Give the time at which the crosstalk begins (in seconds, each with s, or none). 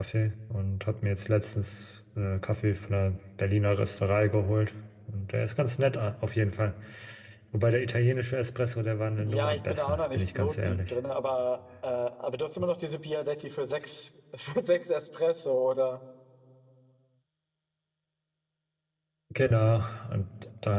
9.2 s